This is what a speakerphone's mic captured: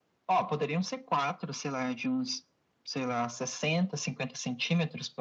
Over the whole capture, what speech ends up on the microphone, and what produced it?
echo only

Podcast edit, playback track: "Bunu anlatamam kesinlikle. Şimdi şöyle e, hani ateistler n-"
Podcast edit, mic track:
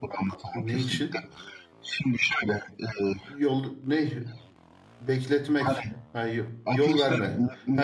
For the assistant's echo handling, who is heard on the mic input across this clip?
both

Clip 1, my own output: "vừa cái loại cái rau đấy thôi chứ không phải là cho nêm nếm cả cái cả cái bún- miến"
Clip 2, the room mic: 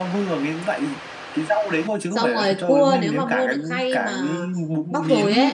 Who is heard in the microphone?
both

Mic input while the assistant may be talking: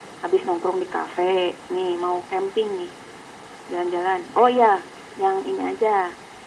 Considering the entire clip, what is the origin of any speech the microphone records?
echo only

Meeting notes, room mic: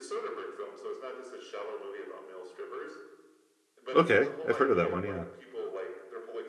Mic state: both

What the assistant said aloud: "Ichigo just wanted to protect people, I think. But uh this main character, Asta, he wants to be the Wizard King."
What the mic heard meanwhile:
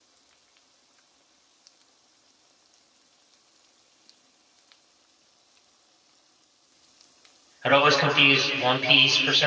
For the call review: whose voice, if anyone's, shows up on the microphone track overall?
user only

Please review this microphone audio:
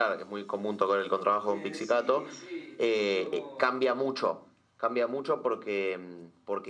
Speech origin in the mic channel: both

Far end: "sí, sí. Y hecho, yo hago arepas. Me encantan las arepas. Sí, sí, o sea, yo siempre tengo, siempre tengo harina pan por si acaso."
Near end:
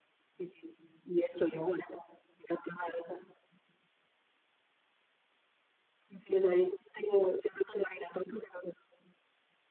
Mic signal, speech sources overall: echo only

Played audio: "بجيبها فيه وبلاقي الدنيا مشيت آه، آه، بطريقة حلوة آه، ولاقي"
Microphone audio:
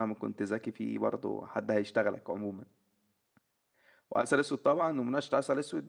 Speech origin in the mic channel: user only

